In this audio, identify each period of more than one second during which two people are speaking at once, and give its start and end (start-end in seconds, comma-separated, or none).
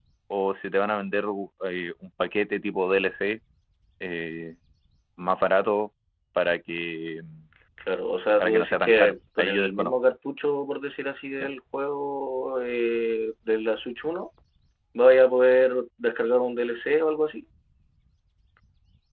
8.4-9.9